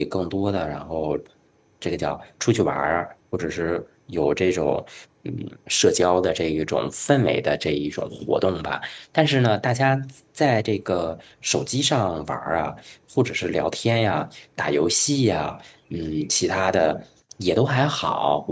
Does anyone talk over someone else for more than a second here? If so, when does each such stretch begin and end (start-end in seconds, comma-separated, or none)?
none